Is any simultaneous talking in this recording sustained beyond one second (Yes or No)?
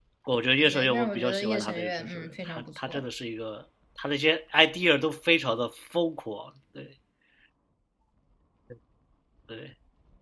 Yes